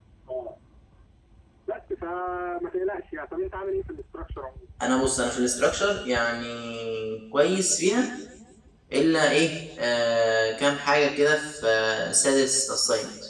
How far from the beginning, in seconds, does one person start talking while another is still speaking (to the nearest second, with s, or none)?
none